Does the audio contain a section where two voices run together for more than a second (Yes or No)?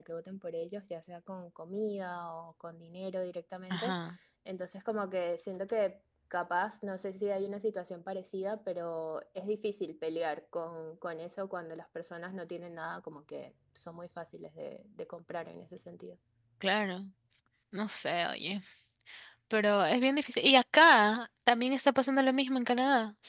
No